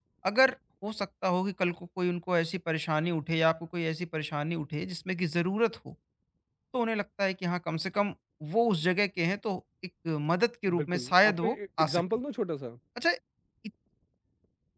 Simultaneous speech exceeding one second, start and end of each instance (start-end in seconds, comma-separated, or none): 10.8-12.0